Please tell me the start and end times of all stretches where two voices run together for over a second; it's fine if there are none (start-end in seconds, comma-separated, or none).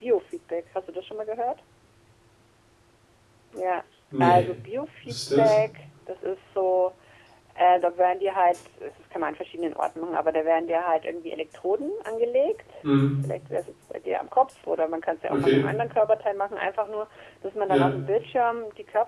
none